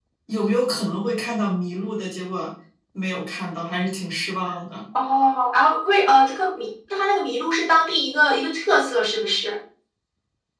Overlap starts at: none

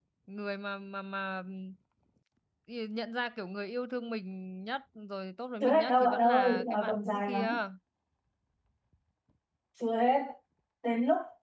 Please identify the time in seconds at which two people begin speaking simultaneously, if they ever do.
6 s

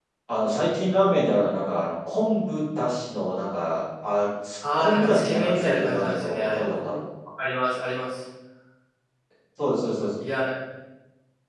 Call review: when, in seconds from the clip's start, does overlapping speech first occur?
5 s

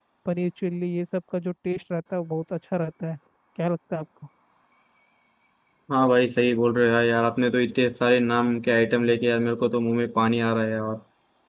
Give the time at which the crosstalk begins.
none

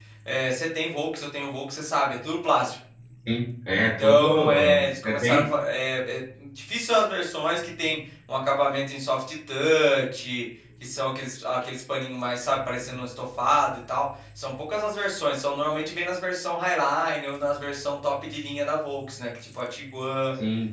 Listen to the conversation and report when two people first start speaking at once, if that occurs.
4 s

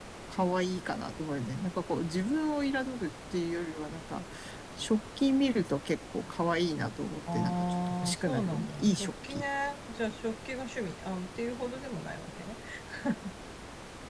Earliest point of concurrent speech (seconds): 7 s

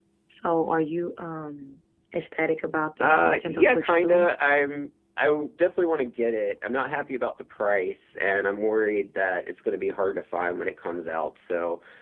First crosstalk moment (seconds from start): 3 s

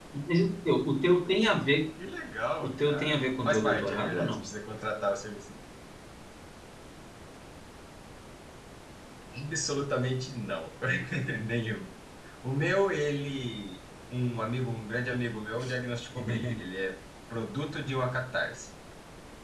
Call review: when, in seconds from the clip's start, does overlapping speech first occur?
3 s

